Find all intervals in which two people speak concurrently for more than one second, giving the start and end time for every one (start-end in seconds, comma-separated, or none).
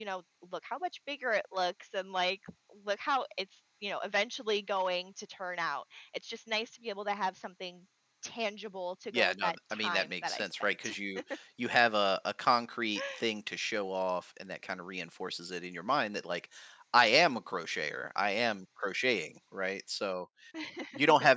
9.1-10.9